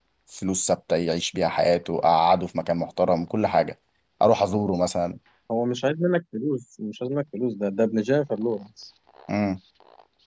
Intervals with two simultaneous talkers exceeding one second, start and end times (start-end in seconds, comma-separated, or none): none